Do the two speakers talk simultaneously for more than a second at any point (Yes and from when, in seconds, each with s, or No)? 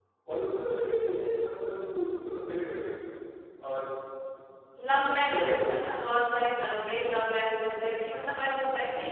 No